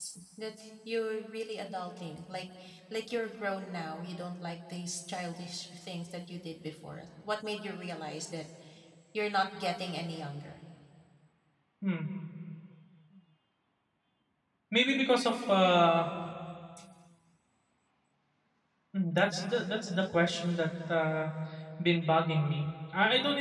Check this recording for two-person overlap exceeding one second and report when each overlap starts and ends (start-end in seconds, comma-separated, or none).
none